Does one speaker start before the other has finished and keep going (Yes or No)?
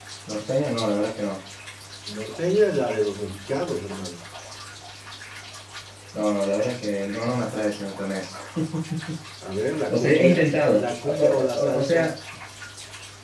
Yes